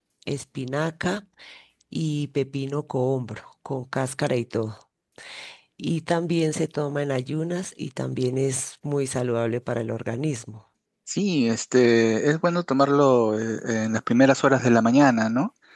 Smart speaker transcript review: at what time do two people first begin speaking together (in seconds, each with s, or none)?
none